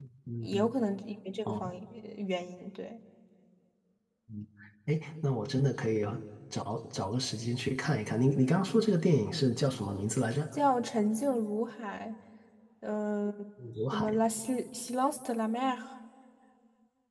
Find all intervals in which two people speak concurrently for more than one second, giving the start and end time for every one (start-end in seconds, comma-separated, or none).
none